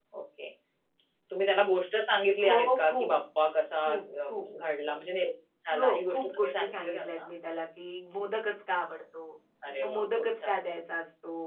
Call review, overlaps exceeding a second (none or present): present